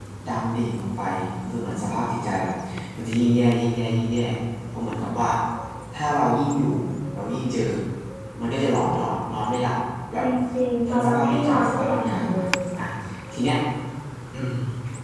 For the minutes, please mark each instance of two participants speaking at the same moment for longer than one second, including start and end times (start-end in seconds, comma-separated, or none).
10.9-12.4